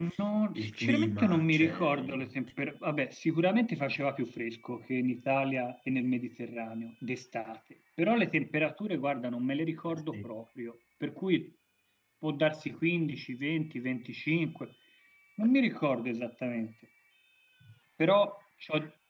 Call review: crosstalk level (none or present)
present